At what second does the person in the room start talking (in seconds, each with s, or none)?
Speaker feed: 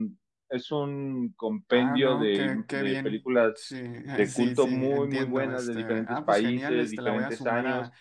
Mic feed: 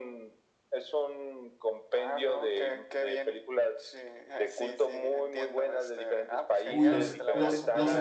6.6 s